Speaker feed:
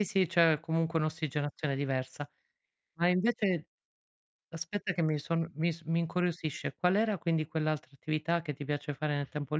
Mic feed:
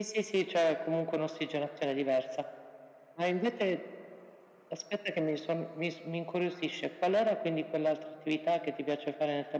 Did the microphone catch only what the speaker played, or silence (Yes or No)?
Yes